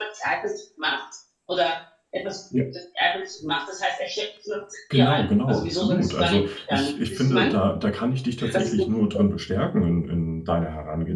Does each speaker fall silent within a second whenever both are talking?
No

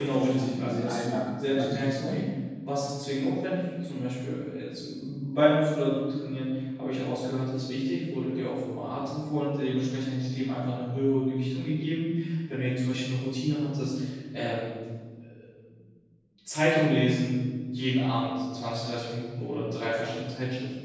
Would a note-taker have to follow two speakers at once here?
Yes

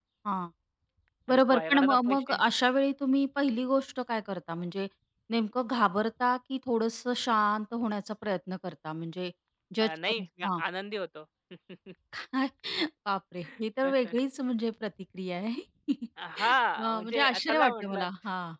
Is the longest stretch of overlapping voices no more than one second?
No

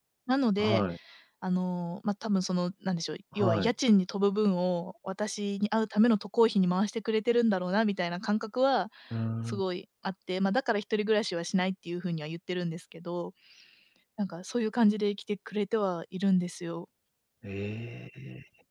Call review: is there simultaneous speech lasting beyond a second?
No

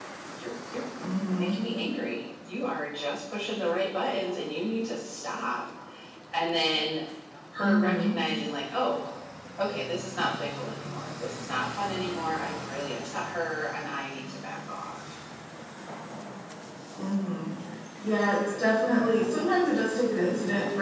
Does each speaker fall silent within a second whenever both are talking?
Yes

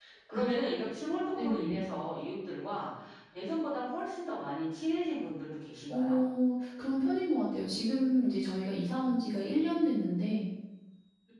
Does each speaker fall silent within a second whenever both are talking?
Yes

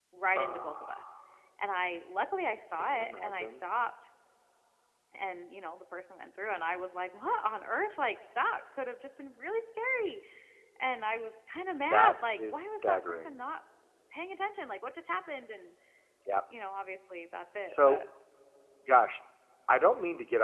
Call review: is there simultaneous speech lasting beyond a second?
Yes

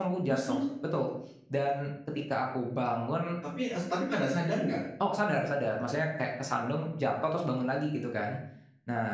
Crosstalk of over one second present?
No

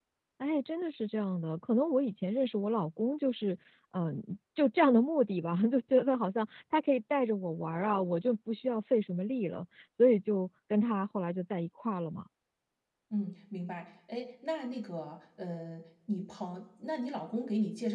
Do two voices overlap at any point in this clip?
No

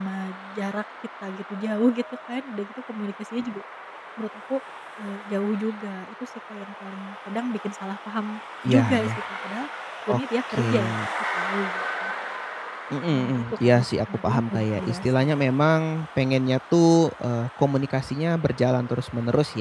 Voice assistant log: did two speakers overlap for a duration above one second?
Yes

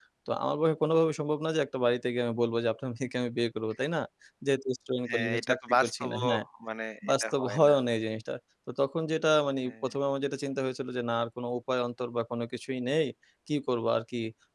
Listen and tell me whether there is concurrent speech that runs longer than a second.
Yes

